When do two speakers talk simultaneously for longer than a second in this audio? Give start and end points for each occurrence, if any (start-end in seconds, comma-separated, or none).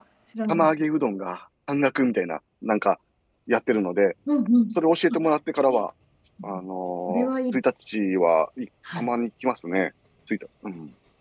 none